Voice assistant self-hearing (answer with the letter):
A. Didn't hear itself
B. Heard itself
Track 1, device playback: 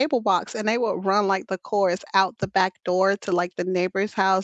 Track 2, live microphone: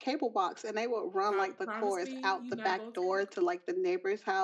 B